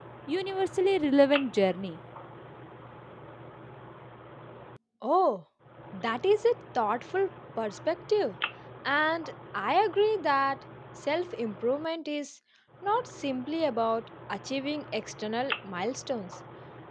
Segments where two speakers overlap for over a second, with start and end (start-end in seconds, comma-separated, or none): none